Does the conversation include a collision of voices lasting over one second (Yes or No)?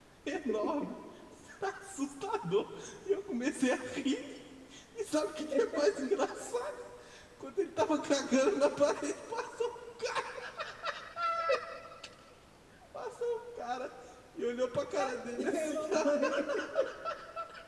Yes